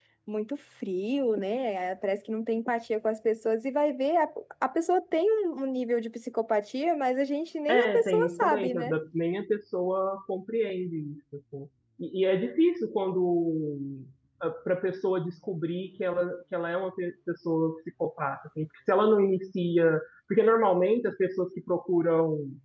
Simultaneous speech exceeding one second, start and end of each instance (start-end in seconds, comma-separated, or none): 7.7-8.9